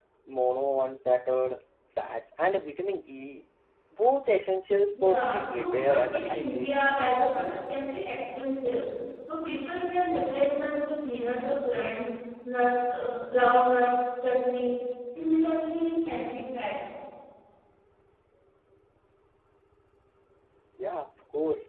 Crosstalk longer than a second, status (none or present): present